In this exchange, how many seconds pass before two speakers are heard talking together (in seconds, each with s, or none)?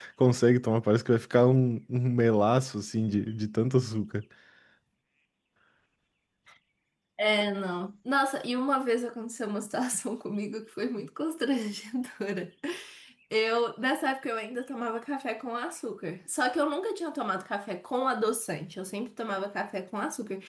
none